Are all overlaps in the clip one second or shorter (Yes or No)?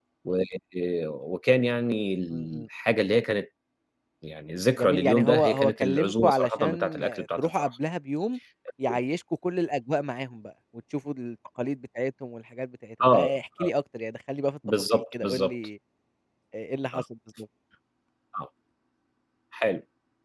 No